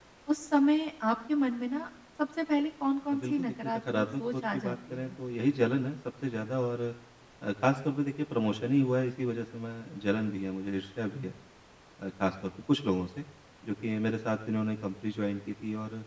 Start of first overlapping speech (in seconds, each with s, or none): 3.1 s